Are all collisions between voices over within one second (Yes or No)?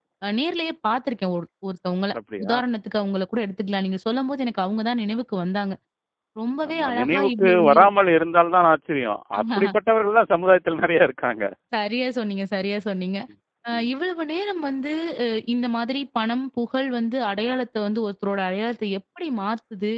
No